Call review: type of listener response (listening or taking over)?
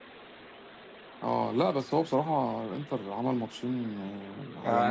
taking over